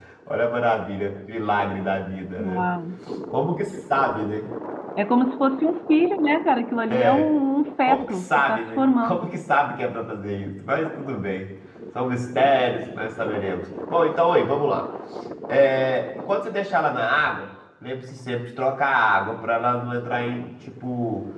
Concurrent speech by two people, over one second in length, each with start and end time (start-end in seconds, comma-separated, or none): 7.9-9.2